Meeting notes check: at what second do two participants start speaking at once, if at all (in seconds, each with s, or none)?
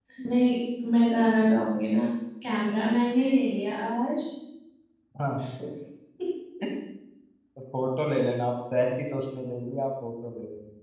none